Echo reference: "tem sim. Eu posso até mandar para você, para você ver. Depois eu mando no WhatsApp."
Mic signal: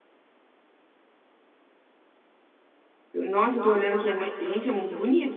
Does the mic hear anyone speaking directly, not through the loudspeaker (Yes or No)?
Yes